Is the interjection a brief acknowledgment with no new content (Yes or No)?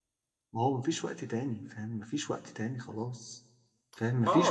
No